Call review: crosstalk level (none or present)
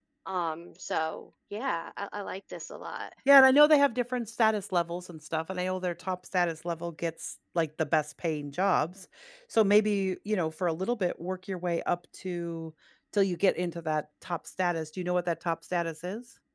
none